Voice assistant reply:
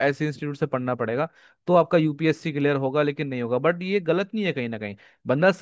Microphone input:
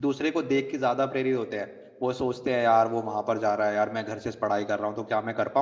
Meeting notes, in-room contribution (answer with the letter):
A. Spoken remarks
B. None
A